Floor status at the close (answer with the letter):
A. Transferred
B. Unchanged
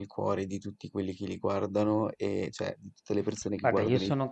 A